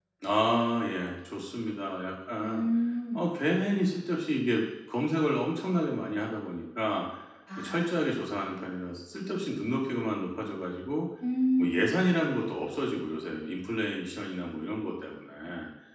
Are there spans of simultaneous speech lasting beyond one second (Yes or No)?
No